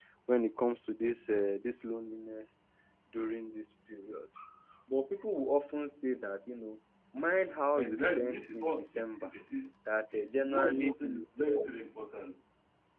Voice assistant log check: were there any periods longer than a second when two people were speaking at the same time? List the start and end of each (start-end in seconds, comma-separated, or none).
7.7-9.3, 10.1-11.6